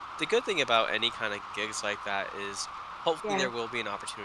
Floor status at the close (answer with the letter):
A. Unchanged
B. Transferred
A